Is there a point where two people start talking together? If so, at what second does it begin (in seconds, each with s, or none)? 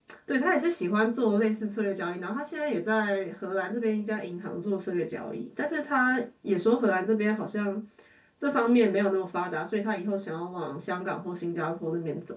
none